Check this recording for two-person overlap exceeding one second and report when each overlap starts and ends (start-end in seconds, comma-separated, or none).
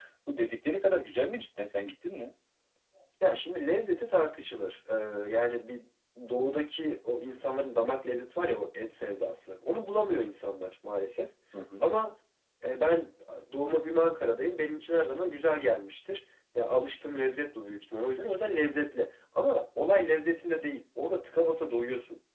none